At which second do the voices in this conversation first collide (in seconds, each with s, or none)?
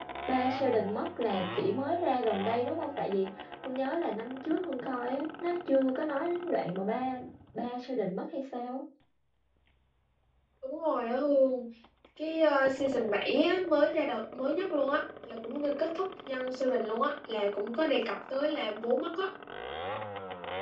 none